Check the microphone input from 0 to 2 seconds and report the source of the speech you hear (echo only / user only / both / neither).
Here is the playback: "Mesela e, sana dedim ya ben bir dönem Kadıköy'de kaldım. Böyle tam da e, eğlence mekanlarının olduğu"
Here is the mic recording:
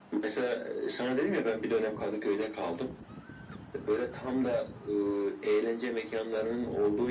echo only